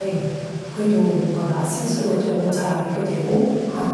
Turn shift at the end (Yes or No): No